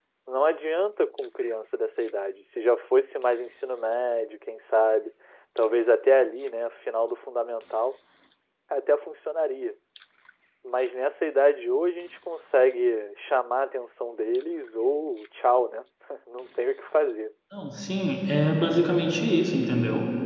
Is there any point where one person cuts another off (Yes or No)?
No